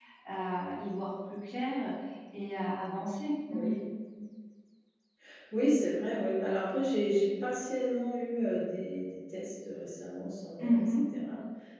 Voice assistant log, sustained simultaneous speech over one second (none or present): none